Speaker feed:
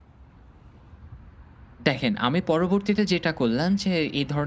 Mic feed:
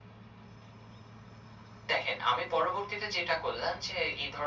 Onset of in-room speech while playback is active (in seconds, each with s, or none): none